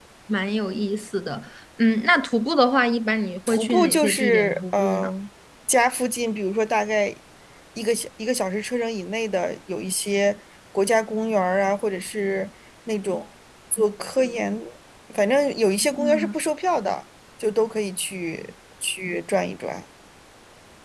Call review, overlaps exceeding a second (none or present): present